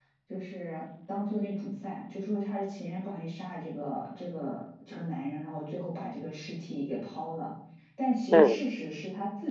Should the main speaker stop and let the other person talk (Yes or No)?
No